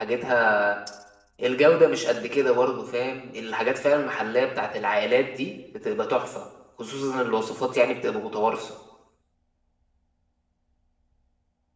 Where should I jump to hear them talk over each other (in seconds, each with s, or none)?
none